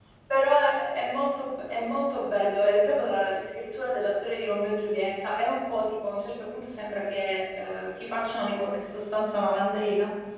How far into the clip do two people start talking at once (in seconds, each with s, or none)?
none